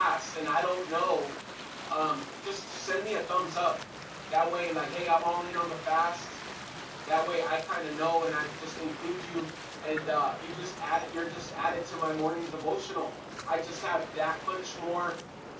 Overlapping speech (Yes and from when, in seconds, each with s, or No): No